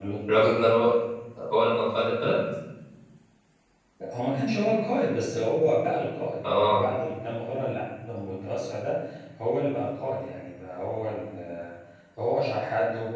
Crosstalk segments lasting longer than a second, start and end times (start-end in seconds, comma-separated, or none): none